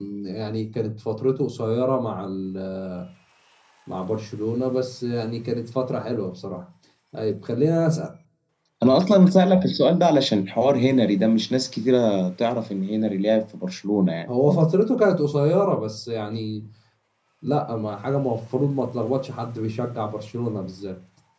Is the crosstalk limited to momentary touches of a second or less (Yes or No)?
Yes